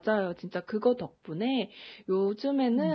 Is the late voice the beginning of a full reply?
No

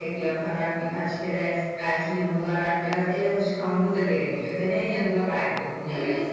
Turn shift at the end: Yes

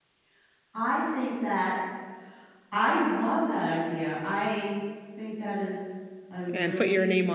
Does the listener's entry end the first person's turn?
Yes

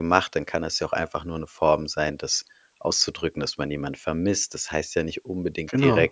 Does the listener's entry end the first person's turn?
No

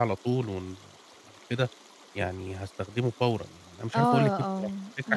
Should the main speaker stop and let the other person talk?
Yes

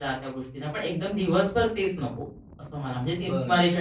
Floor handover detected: Yes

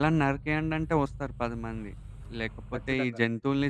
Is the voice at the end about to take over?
No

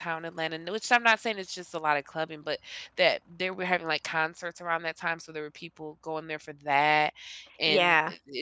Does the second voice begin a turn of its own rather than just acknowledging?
No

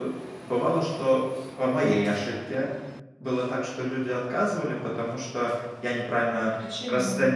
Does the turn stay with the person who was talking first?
Yes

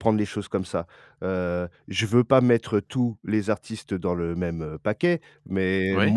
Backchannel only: Yes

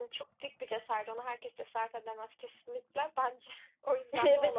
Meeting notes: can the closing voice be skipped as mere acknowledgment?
No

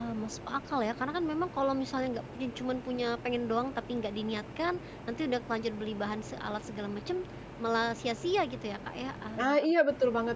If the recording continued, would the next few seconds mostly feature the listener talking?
Yes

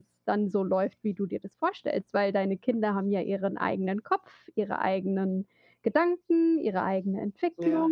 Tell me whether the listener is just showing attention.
No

